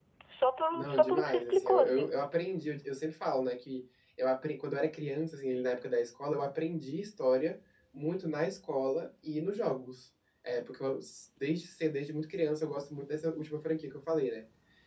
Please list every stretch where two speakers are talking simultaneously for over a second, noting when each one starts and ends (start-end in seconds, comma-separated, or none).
0.7-2.1